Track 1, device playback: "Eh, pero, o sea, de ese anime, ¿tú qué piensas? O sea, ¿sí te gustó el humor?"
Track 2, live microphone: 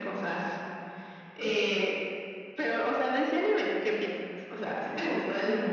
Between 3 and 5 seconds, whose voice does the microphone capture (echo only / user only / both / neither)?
echo only